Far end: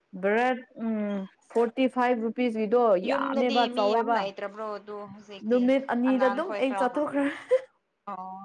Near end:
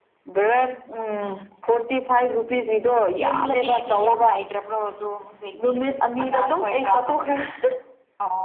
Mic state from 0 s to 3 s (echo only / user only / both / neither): echo only